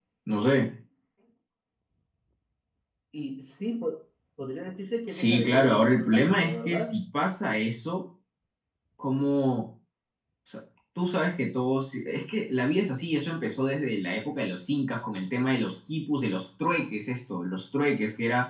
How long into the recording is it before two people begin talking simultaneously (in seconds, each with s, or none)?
5.1 s